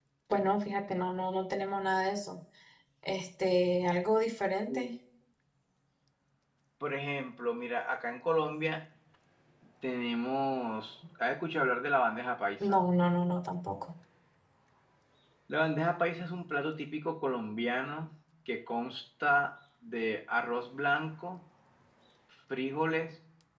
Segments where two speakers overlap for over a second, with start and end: none

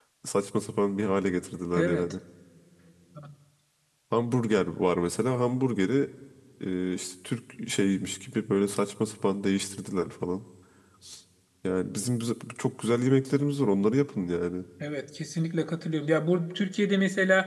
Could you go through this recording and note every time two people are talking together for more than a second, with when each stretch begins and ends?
none

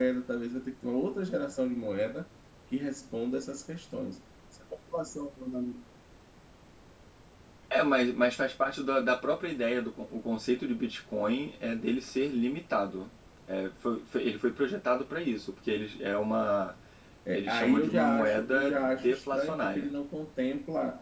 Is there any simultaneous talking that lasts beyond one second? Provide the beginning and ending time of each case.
17.3-19.9

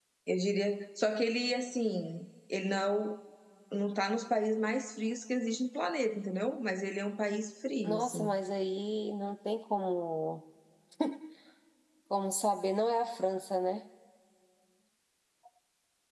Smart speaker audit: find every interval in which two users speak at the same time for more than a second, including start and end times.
none

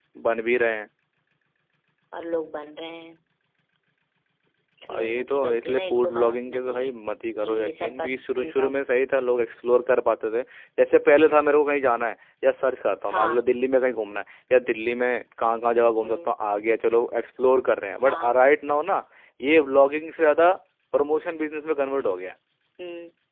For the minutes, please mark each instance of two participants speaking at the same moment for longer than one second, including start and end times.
4.9-6.9, 7.4-8.7

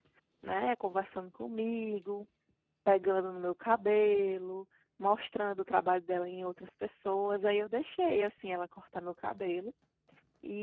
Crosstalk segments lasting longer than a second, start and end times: none

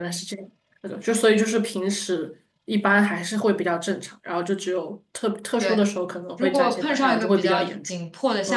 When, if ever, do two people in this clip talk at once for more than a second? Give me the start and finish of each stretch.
6.4-7.9

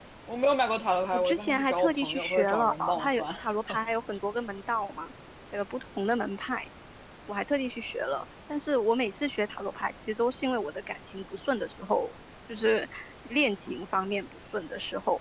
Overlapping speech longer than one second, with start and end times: 1.1-3.2

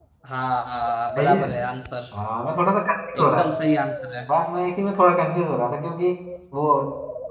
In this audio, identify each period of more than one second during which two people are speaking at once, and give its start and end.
none

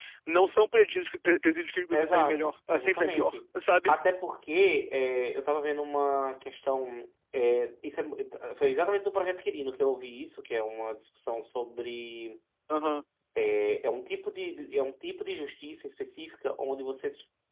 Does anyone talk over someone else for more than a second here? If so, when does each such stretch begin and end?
1.9-3.4

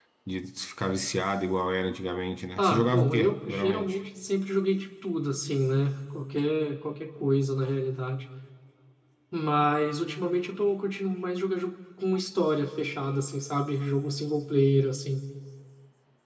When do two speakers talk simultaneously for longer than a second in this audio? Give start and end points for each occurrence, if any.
2.6-4.0

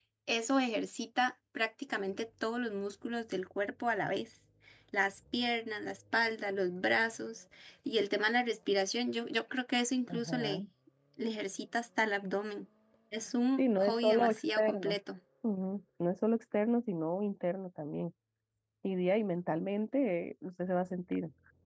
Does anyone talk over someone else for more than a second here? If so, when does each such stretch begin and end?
13.6-15.0

